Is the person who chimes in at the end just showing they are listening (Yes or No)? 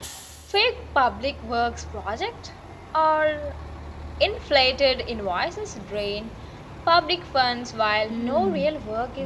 No